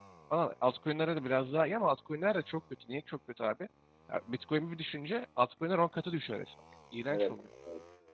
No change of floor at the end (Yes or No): No